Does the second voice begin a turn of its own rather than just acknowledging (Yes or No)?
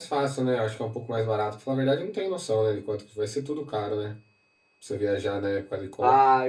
Yes